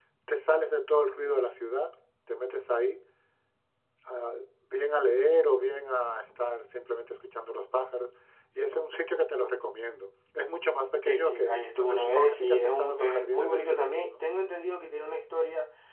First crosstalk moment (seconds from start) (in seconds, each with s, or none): 11.0 s